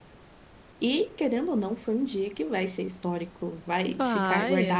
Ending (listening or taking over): listening